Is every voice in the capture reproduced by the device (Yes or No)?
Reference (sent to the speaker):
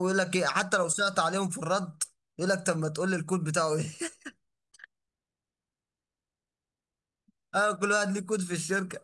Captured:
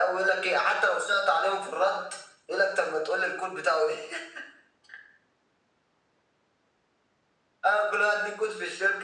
Yes